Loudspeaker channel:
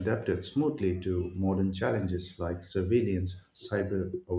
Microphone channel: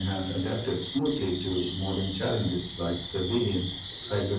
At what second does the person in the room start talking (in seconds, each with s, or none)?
none